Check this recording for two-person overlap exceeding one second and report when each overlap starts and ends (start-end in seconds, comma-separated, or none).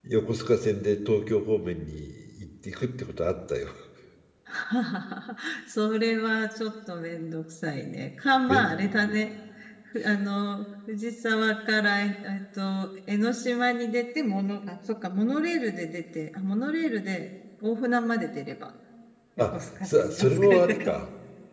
19.4-21.0